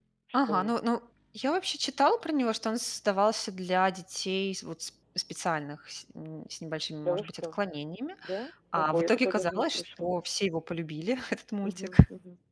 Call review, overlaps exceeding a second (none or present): present